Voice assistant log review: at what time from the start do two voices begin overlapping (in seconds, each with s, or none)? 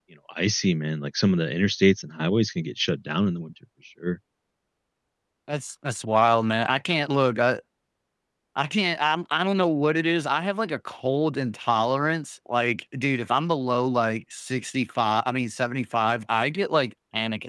none